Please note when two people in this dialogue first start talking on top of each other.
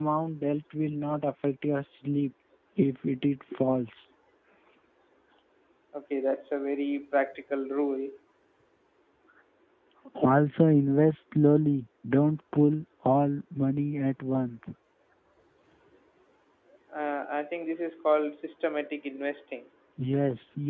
none

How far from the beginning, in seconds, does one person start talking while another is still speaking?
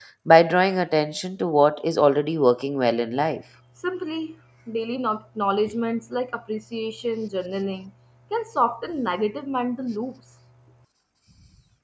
none

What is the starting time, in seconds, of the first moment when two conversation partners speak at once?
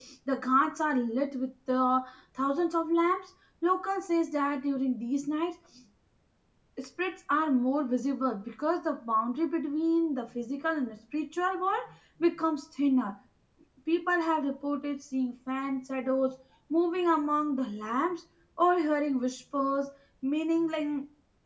none

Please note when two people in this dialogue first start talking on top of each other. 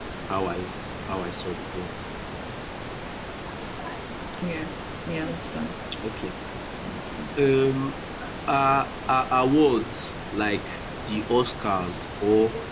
none

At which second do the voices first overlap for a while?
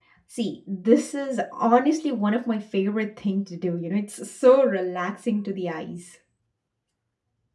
none

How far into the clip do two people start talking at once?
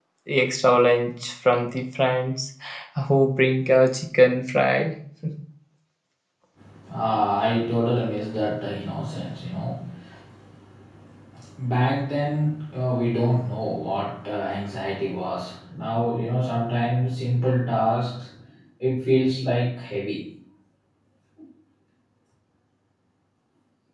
none

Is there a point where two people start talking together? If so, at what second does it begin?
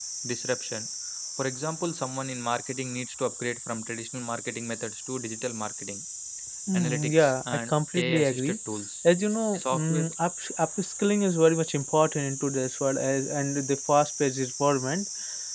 6.7 s

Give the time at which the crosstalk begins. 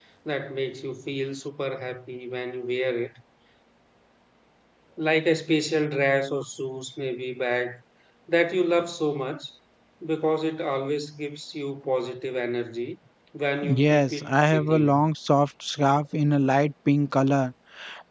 13.6 s

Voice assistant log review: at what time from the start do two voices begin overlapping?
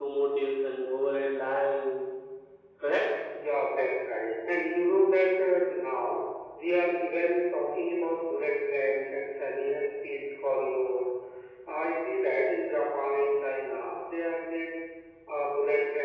none

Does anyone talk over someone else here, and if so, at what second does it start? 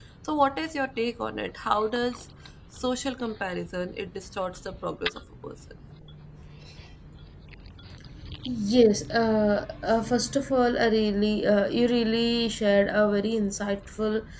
none

